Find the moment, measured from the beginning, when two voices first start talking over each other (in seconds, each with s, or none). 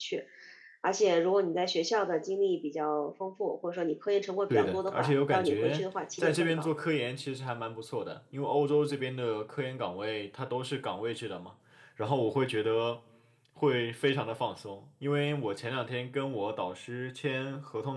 4.5 s